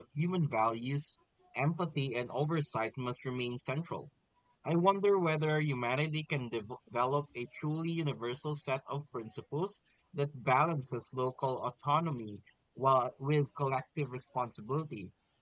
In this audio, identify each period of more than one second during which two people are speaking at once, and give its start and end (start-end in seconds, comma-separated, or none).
none